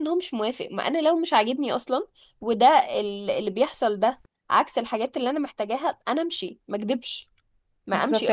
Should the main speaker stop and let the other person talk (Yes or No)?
Yes